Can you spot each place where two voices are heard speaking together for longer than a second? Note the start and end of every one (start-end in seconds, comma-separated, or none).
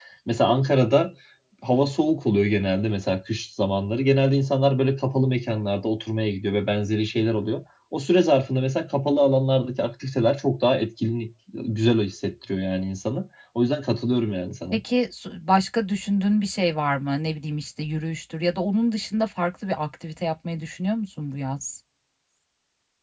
none